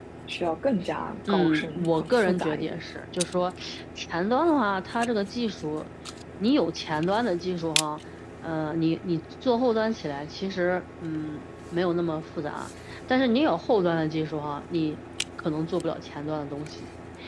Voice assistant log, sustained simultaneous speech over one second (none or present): present